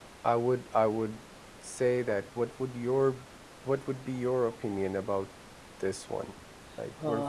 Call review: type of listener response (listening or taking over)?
taking over